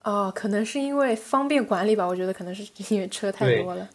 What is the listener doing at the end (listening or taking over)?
taking over